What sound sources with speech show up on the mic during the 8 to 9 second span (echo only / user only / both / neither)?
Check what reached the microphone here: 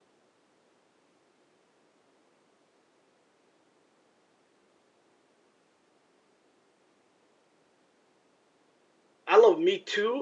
neither